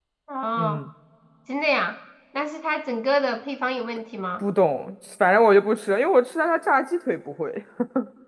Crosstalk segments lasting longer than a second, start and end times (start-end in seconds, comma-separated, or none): none